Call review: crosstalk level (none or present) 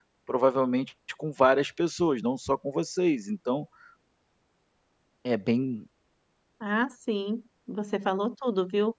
none